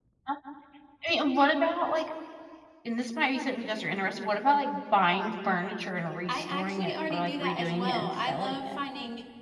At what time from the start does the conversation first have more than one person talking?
6.3 s

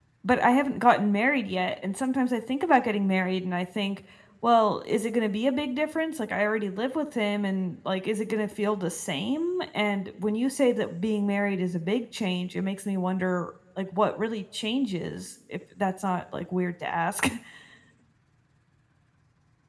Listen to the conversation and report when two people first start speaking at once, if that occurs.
none

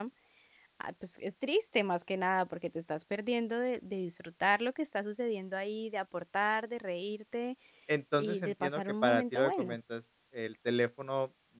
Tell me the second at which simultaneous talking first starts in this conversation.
8.2 s

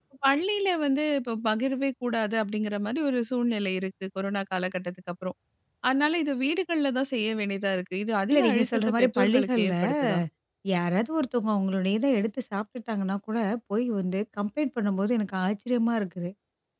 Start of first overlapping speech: 8.3 s

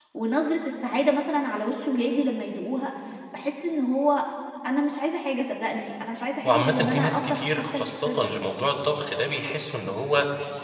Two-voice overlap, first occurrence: 6.4 s

